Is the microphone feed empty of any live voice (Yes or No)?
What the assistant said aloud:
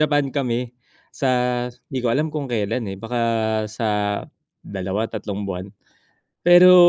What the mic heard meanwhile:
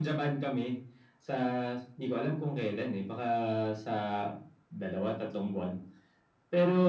Yes